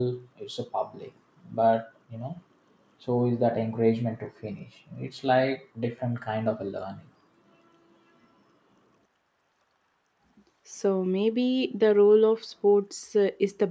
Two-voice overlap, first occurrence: none

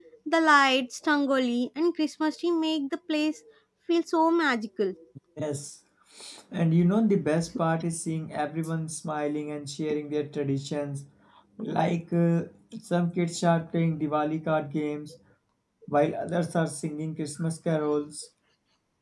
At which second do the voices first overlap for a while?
none

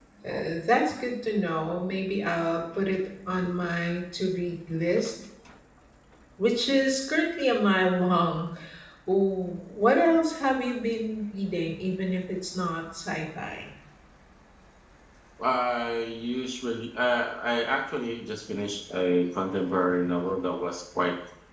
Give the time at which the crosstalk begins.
none

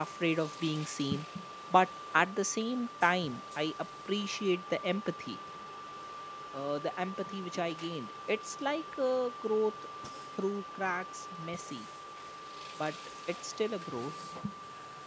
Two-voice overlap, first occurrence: none

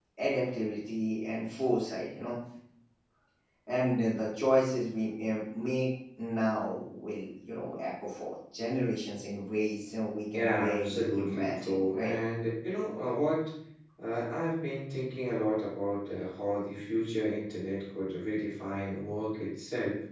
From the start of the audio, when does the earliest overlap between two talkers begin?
10.3 s

